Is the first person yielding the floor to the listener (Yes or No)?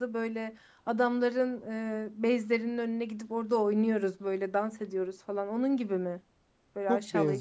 Yes